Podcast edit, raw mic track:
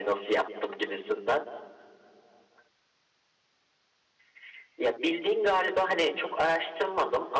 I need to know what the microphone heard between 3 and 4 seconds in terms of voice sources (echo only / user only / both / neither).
neither